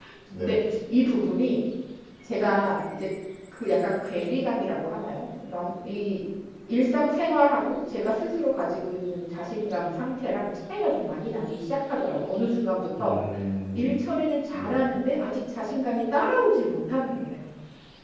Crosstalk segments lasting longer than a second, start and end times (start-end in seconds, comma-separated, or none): none